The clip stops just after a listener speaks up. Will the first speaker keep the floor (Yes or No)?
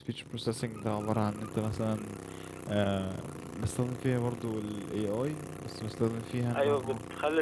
No